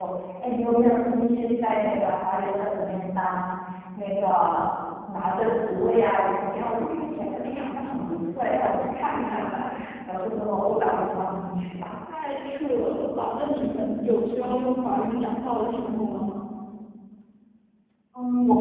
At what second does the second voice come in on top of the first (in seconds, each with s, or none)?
none